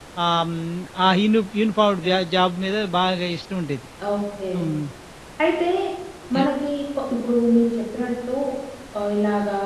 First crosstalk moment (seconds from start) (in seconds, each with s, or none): none